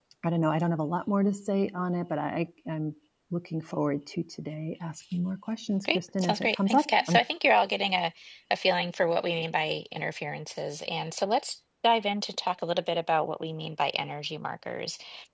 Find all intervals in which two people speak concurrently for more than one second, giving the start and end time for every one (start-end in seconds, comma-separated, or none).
5.9-7.2